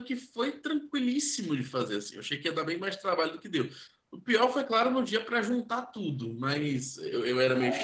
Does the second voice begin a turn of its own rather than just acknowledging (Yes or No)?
Yes